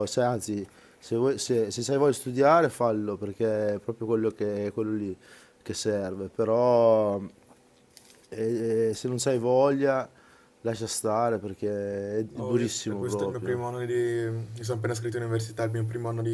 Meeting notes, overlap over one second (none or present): present